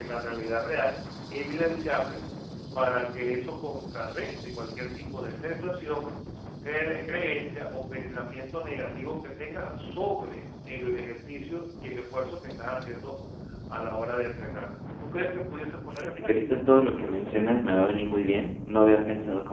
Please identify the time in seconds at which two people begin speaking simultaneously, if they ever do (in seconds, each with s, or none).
15.9 s